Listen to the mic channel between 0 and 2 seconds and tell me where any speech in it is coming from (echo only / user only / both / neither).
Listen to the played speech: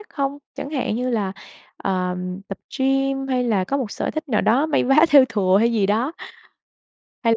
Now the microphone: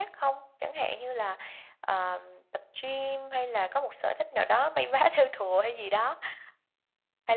echo only